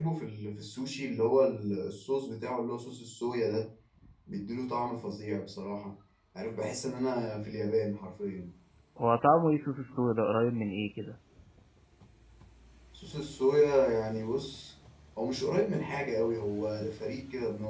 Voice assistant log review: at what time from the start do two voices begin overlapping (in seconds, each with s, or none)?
none